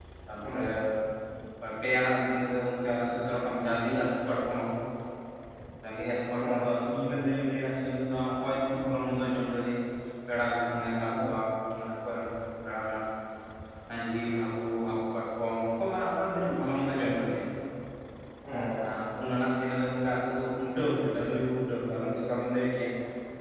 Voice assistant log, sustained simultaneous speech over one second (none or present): none